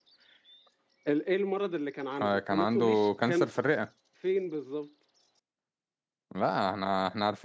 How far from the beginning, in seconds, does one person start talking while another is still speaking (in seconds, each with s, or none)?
2.2 s